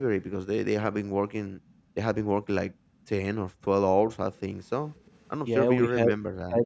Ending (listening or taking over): taking over